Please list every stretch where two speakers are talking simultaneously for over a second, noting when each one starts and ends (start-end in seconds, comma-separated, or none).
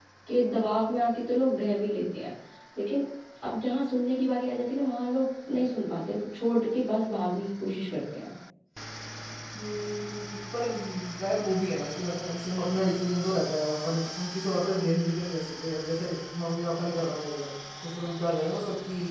none